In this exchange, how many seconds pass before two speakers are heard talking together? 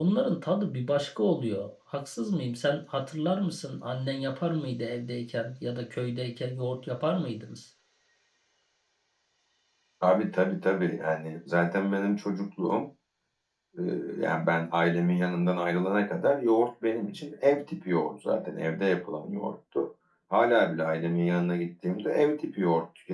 none

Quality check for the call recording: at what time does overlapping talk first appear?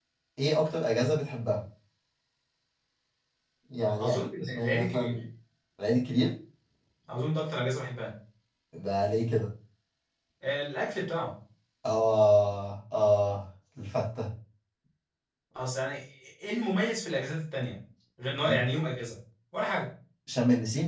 4.0 s

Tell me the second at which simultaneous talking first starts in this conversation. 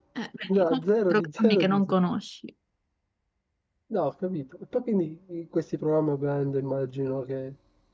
0.6 s

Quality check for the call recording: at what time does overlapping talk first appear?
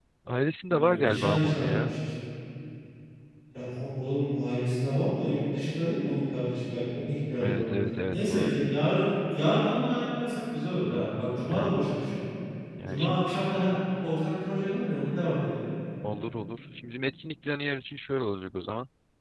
0.7 s

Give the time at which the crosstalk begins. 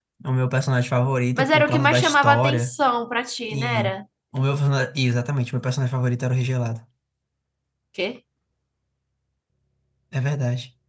1.4 s

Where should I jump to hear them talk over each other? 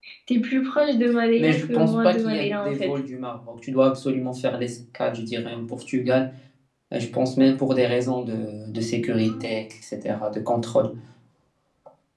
1.4 s

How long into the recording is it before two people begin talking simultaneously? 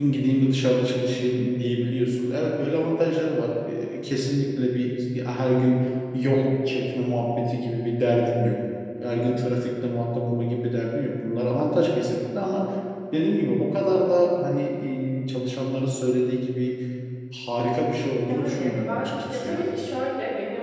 18.3 s

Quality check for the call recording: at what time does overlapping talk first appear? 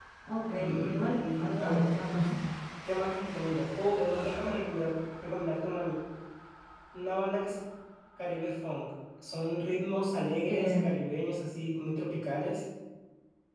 0.6 s

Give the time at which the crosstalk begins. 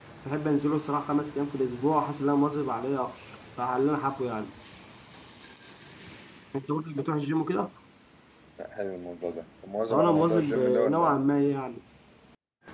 9.9 s

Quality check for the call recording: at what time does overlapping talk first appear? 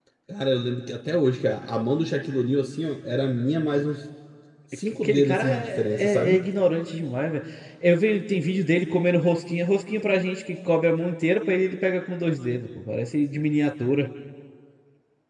4.9 s

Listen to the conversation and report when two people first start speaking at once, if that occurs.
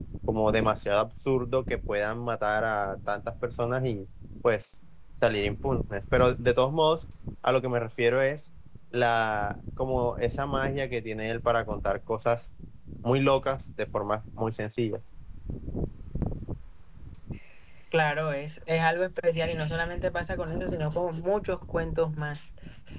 none

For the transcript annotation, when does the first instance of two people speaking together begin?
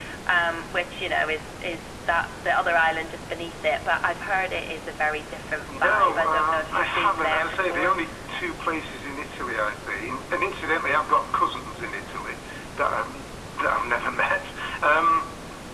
5.7 s

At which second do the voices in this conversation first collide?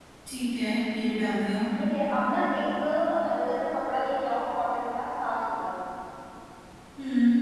none

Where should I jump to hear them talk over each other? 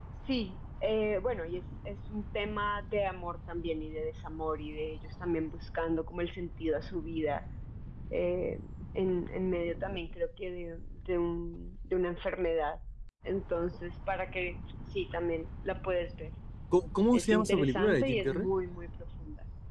17.1 s

